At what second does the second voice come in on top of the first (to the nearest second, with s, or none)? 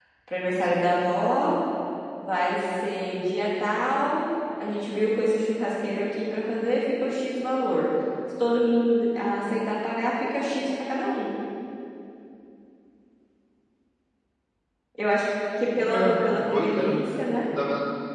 16 s